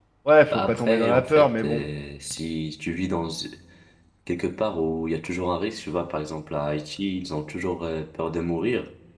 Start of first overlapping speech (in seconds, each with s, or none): 0.5 s